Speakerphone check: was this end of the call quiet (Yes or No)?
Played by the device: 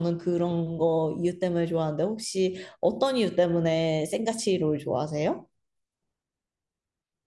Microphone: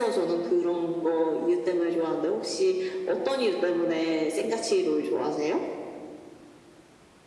Yes